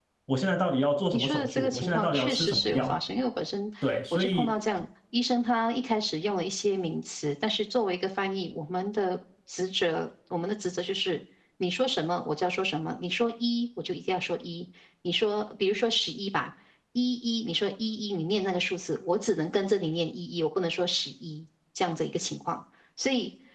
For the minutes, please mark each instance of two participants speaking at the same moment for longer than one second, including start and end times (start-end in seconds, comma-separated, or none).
1.1-2.9